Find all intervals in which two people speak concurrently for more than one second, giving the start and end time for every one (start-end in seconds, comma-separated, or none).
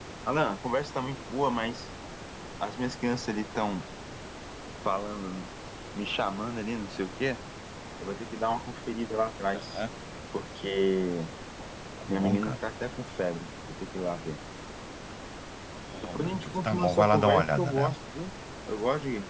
16.1-17.9